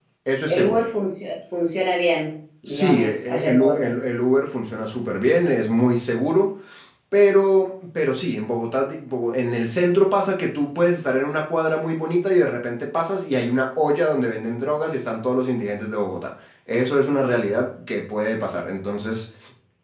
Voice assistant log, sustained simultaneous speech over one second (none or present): present